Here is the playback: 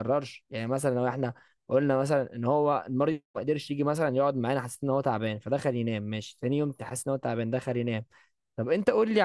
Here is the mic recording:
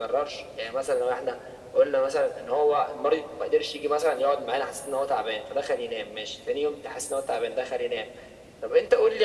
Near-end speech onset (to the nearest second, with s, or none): none